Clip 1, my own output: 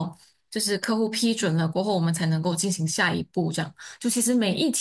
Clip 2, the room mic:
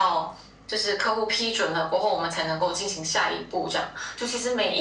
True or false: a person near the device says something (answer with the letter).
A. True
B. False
B